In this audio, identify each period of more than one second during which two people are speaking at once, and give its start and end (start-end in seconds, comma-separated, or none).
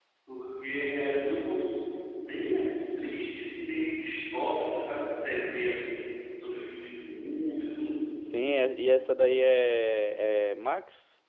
none